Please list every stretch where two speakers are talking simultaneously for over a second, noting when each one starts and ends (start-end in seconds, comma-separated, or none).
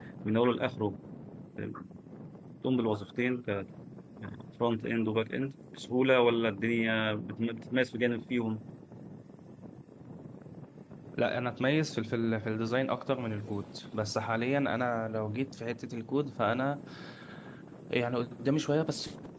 none